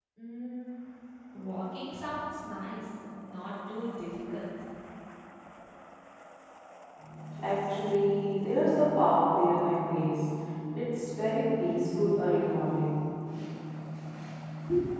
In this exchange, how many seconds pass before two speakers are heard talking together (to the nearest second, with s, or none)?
none